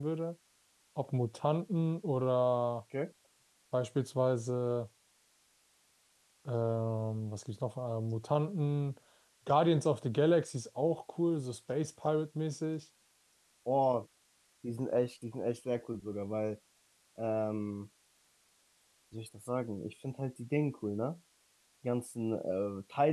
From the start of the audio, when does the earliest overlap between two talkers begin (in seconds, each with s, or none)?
none